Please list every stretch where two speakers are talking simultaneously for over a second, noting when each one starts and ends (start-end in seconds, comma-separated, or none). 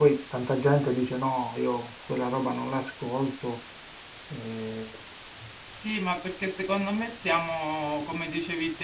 none